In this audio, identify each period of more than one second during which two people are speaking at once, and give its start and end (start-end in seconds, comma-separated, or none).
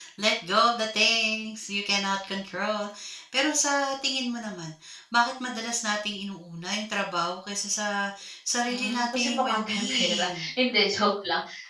8.7-10.3